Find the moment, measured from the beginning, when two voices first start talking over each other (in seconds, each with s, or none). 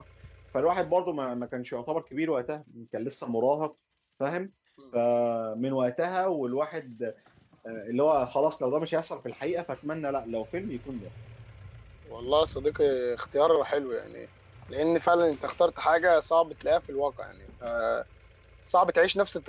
none